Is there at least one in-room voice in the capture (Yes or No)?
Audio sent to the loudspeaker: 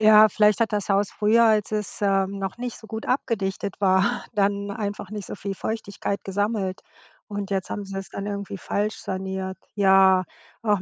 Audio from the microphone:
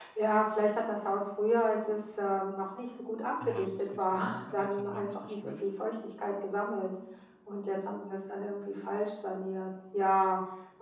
Yes